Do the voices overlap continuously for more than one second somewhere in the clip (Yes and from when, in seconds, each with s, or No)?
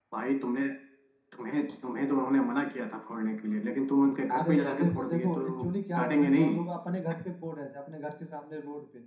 Yes, from 4.3 s